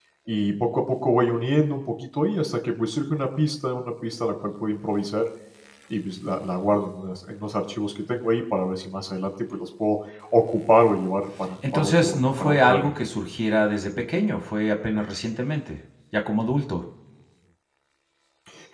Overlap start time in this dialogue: 11.6 s

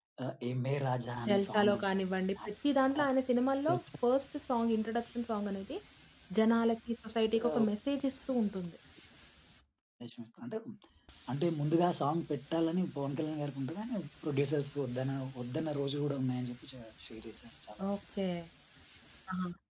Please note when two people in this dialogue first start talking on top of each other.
1.3 s

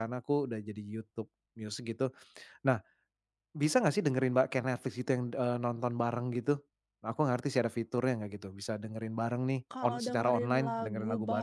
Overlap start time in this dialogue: 9.7 s

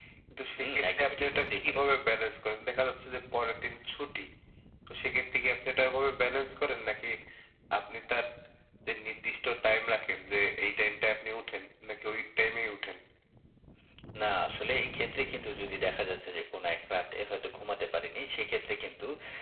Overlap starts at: 0.6 s

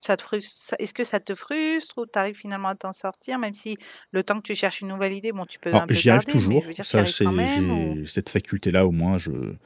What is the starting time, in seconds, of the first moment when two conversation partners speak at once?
5.7 s

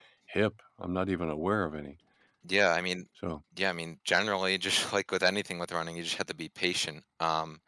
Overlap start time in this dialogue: none

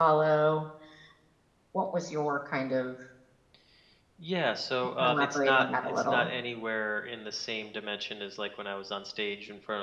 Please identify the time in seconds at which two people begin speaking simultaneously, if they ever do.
5.0 s

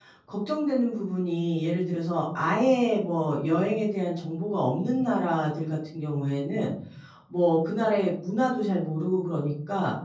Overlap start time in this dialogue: none

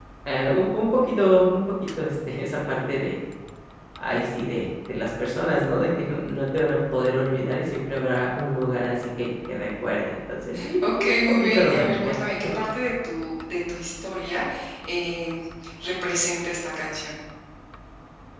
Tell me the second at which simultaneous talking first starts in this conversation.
10.8 s

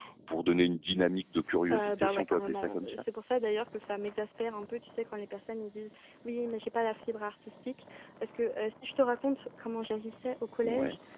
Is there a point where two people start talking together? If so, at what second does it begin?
1.7 s

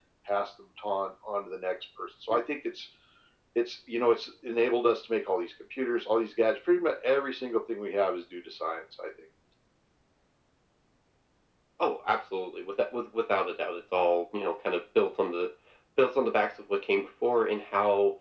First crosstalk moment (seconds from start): none

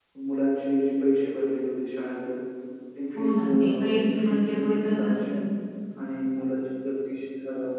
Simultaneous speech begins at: 3.2 s

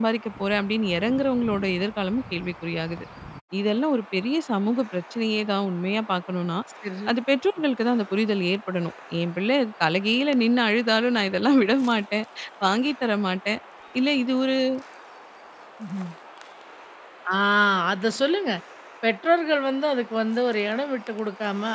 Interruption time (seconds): none

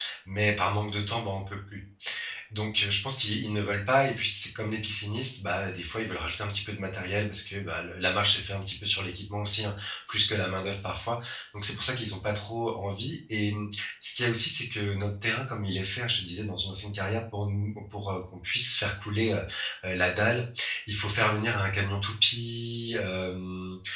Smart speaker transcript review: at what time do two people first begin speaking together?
none

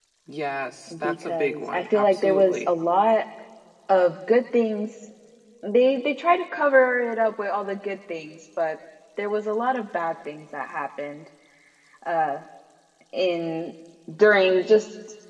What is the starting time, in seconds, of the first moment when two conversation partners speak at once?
1.0 s

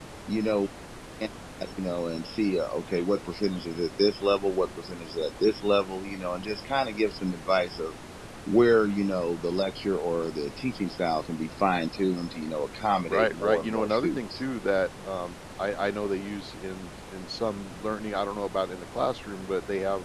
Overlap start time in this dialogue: 13.1 s

